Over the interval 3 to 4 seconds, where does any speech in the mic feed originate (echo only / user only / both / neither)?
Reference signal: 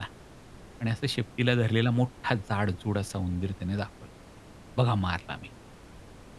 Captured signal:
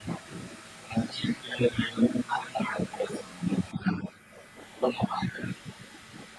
echo only